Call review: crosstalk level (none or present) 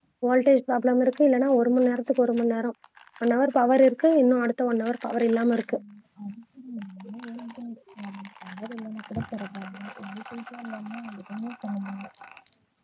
none